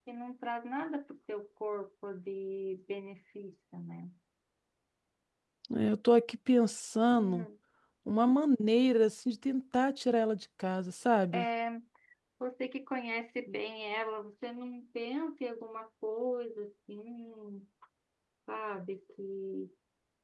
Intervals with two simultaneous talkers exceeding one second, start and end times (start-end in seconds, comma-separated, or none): none